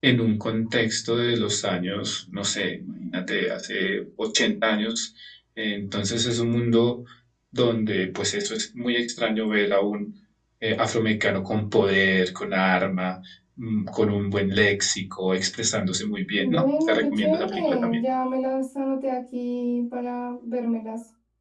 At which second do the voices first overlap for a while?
16.4 s

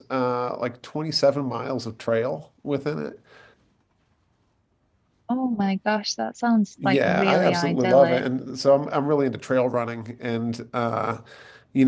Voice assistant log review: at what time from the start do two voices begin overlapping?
6.8 s

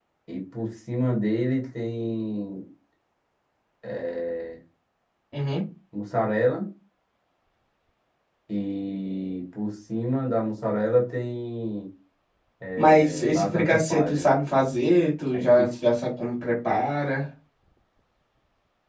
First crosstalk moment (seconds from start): 12.8 s

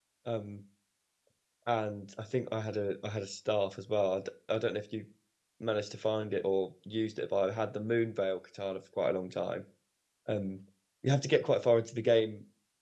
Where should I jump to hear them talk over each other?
none

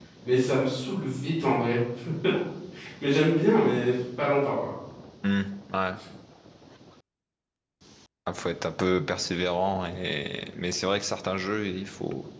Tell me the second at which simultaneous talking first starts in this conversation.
none

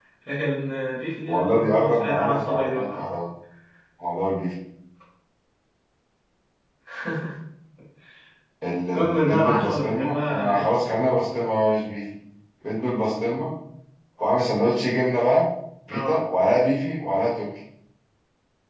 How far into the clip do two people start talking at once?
1.3 s

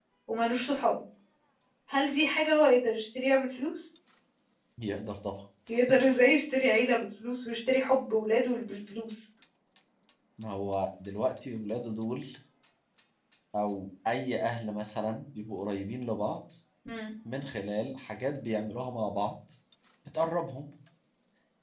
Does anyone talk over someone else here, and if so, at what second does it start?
none

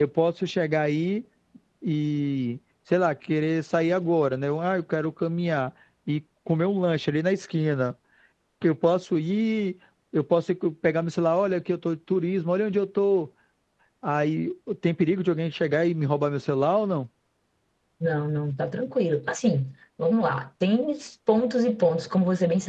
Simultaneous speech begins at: none

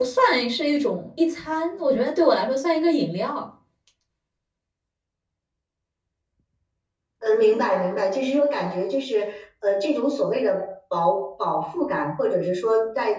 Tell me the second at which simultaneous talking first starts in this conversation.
none

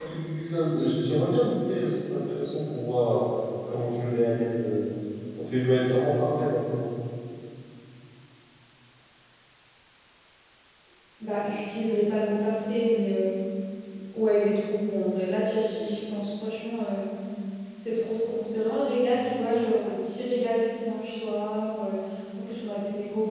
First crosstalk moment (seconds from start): none

